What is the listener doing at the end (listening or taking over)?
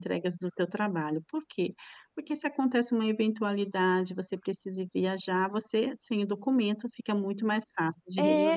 taking over